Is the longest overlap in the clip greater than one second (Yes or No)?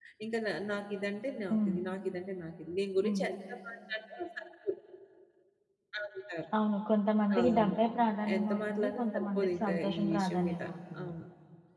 Yes